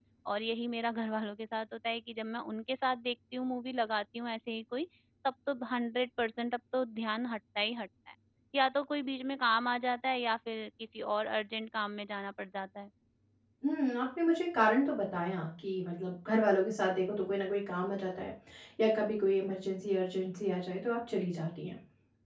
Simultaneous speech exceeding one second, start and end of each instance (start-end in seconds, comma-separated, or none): none